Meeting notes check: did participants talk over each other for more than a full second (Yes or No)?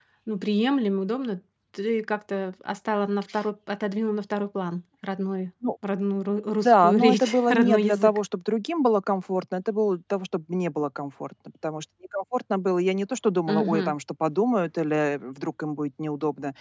Yes